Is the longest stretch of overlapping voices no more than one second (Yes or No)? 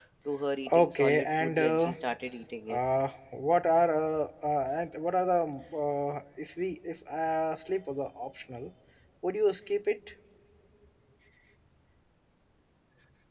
No